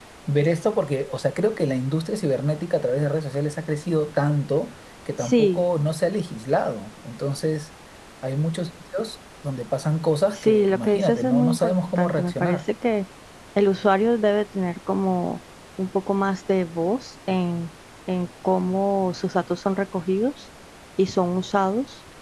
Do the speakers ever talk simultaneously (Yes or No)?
Yes